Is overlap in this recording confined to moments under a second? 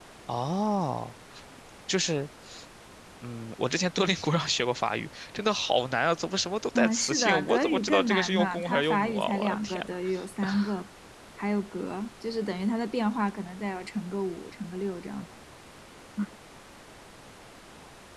No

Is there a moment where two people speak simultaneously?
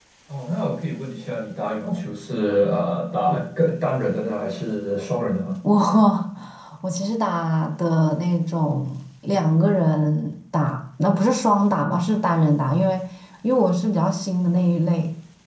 No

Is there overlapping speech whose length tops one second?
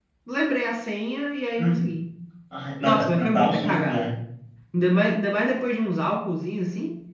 Yes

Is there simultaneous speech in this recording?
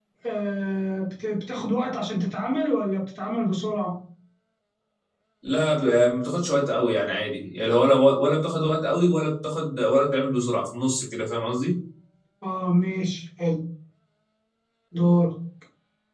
No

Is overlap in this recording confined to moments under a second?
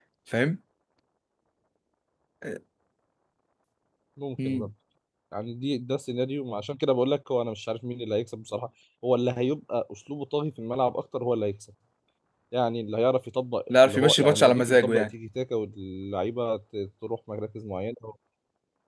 No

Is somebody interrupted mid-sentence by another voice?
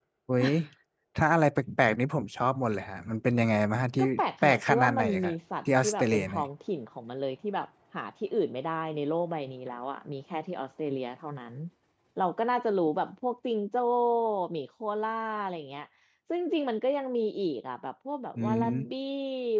Yes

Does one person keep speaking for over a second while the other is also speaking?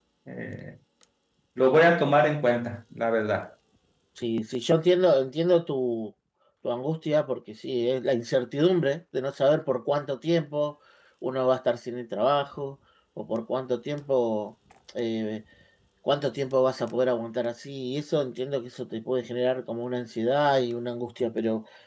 No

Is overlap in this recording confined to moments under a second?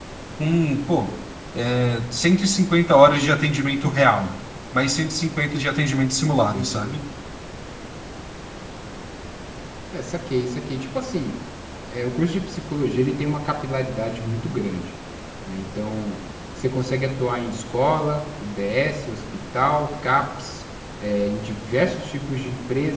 Yes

